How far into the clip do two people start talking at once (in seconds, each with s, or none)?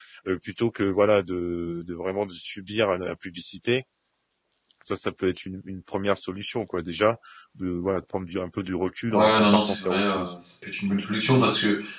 9.1 s